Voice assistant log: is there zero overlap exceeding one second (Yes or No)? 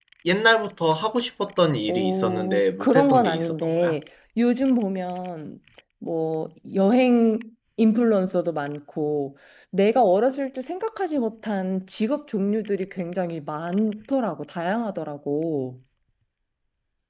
No